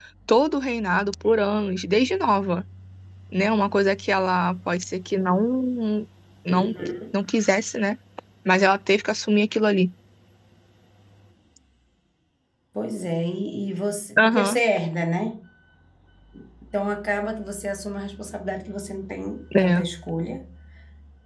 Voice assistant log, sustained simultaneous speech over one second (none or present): none